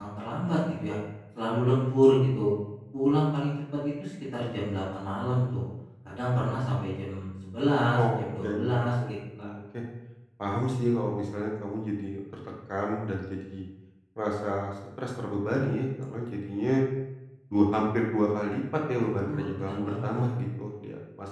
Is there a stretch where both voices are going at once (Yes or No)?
Yes